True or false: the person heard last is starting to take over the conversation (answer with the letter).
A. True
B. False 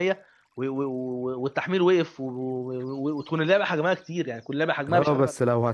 A